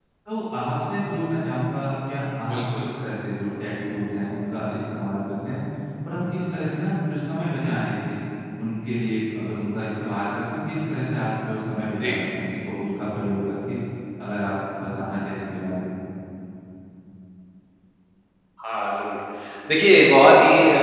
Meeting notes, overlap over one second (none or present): none